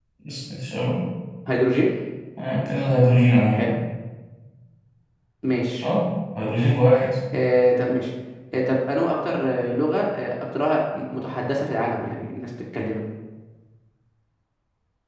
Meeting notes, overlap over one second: none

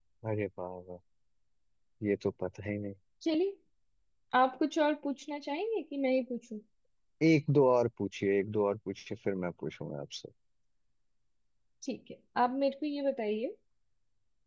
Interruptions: none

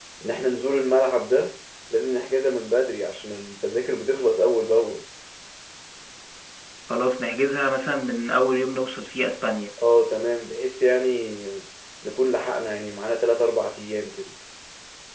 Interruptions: none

